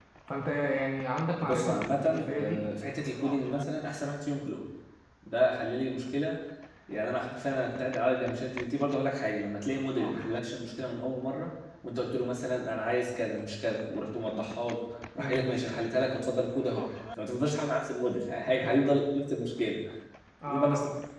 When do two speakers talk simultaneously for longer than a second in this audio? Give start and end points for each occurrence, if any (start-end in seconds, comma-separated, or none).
1.4-2.6